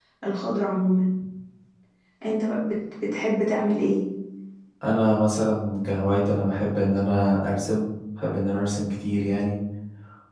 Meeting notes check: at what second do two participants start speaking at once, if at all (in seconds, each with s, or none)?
none